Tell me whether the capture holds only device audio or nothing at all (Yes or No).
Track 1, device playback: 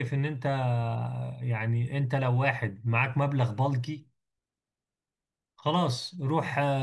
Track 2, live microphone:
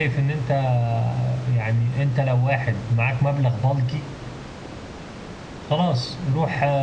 Yes